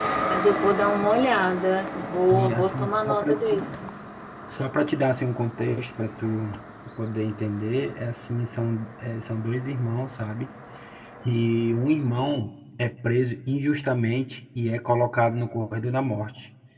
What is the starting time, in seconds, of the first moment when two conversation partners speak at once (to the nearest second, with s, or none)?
2 s